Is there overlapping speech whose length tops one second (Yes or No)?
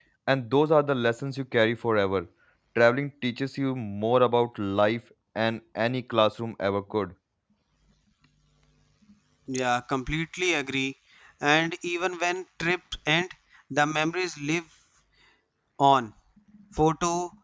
No